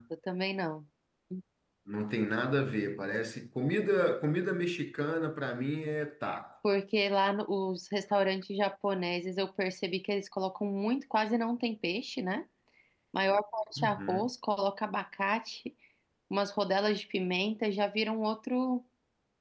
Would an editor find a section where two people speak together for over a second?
No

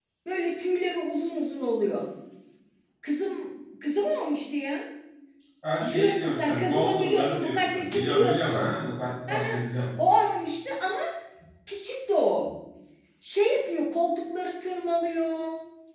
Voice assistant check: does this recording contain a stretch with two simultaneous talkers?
Yes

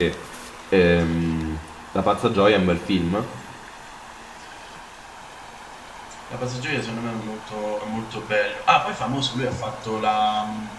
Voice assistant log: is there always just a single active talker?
Yes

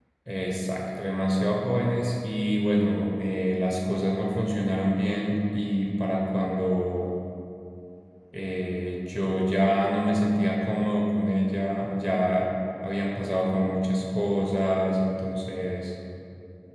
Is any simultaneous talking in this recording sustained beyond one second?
No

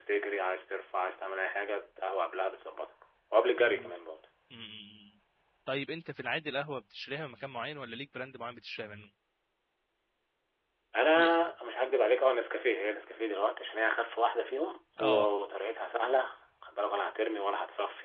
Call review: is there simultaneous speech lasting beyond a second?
No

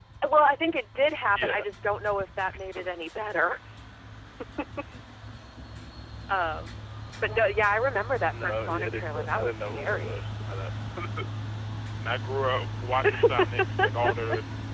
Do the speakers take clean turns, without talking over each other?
No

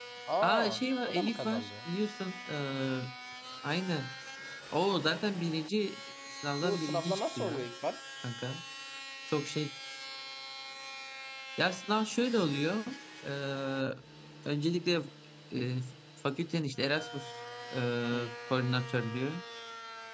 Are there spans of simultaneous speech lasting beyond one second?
Yes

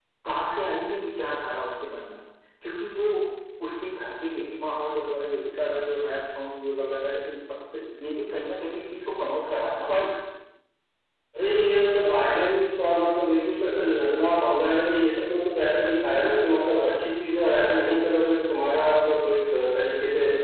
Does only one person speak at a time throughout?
Yes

